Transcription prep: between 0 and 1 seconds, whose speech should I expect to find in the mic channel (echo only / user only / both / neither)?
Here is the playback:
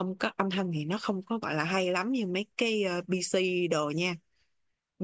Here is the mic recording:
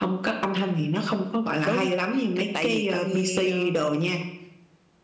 echo only